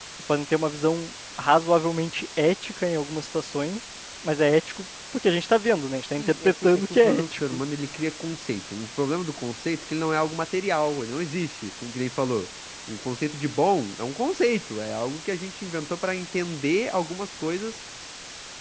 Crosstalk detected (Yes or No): Yes